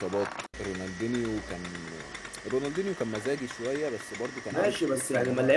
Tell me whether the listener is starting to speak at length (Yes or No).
Yes